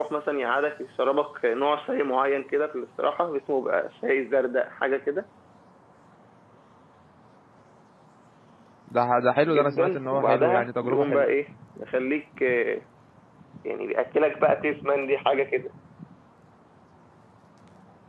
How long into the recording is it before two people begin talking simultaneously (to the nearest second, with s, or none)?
9 s